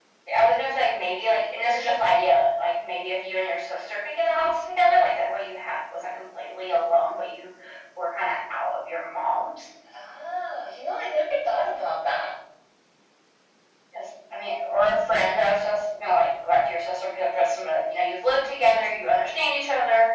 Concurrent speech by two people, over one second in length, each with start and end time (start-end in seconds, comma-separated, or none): none